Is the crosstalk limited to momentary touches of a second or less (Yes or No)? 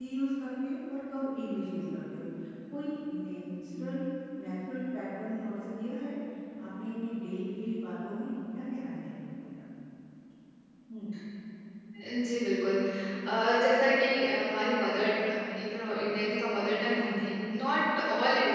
Yes